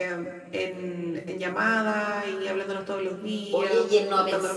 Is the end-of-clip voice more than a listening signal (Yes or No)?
Yes